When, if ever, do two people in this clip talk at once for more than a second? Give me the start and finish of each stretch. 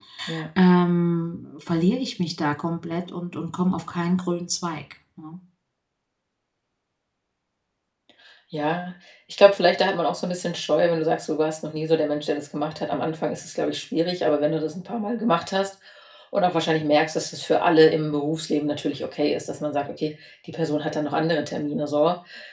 none

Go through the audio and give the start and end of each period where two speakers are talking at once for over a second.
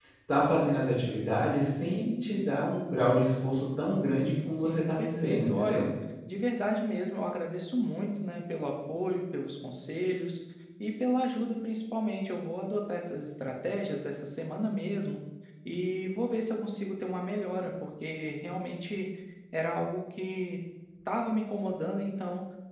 4.5-5.8

